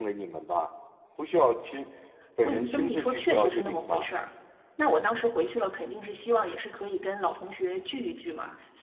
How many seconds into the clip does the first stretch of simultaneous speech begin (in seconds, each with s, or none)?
2.4 s